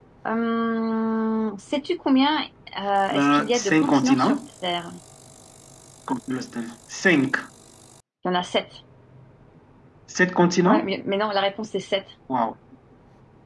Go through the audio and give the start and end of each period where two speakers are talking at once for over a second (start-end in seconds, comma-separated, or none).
3.1-4.4